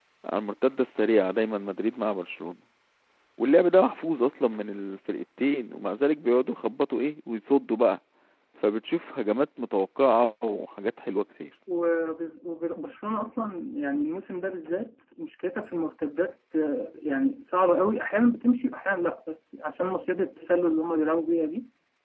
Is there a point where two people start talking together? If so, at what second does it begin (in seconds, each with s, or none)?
none